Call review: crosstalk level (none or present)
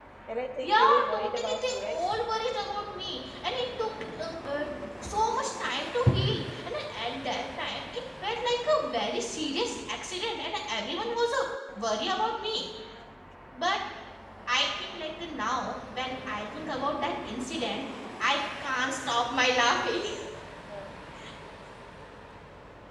present